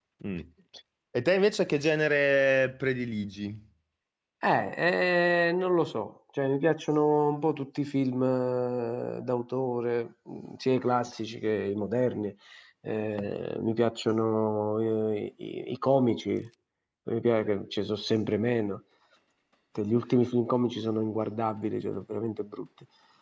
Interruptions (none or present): none